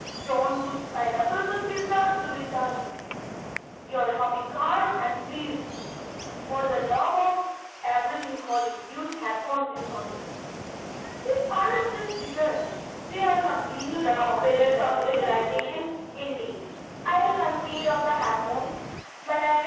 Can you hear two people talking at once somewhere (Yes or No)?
Yes